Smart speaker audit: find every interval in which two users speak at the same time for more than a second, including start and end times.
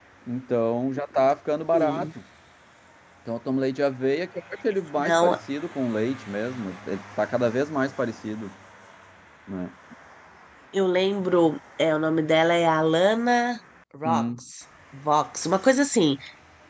none

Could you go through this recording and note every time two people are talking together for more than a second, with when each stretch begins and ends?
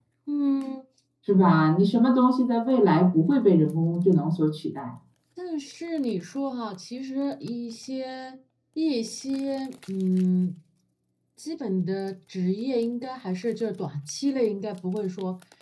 none

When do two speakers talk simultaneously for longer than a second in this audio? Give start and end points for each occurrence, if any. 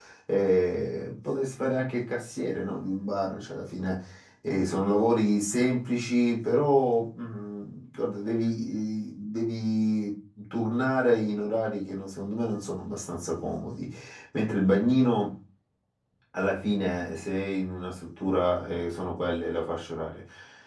none

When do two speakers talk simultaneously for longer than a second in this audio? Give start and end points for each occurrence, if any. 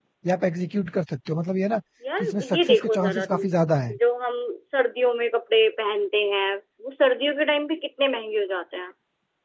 2.2-3.4

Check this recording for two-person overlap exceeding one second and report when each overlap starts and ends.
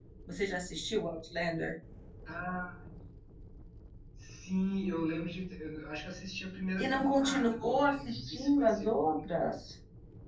6.8-8.9

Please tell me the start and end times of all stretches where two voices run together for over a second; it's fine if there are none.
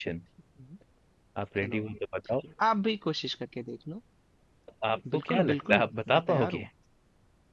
5.1-6.6

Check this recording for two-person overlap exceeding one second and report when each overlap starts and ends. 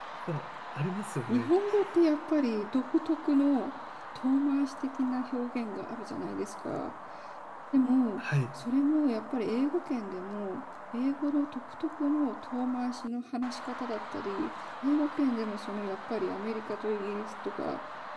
none

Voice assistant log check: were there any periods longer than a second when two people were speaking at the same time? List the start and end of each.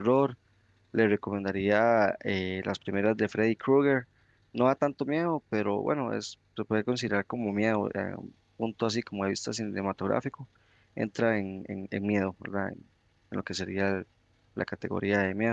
none

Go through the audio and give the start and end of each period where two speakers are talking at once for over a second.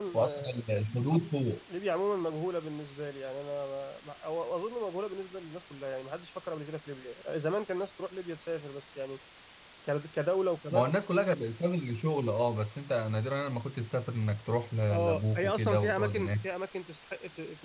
14.9-16.4

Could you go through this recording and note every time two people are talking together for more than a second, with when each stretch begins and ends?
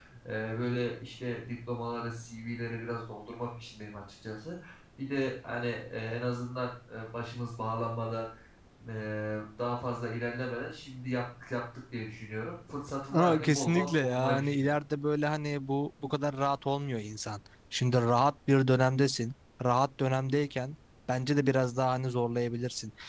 13.1-14.7

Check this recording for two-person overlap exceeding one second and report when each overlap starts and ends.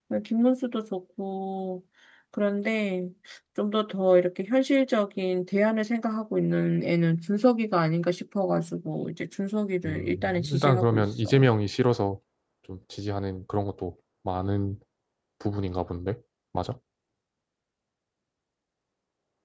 9.9-11.4

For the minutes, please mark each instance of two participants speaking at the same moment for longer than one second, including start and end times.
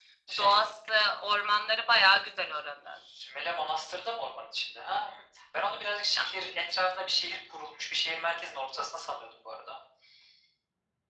none

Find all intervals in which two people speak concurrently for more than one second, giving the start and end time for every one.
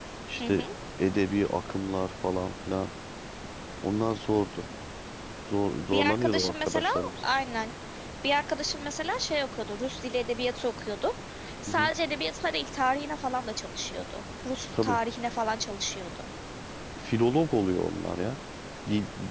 5.8-7.1

